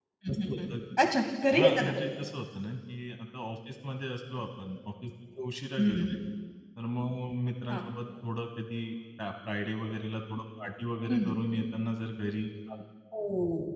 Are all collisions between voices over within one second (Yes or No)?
Yes